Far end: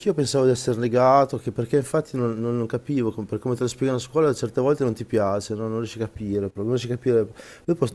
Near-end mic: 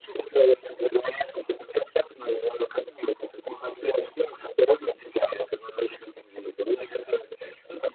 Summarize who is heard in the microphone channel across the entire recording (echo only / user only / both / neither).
echo only